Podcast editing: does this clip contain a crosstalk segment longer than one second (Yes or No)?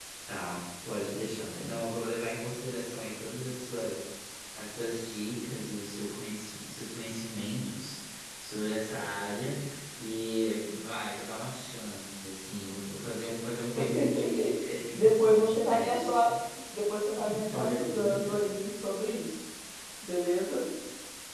Yes